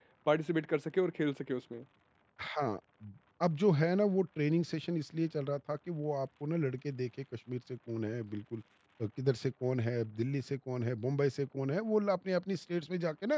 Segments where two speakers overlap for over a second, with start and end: none

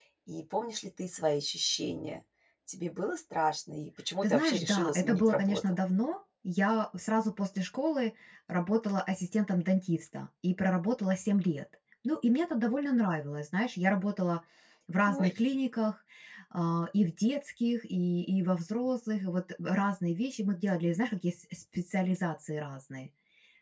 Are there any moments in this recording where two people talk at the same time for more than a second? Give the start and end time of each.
4.2-5.6

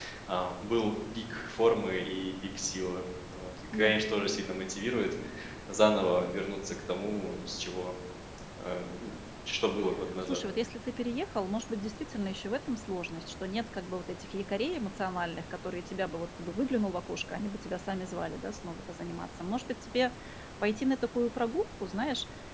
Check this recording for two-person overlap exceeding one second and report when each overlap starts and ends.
none

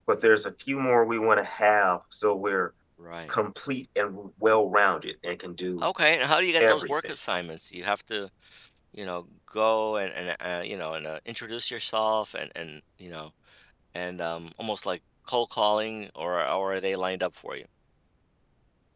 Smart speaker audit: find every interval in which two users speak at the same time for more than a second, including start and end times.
none

